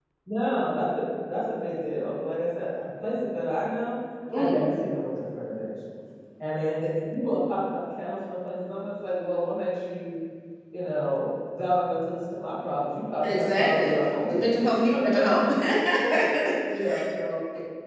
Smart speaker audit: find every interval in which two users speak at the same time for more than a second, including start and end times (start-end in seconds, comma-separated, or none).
13.2-14.4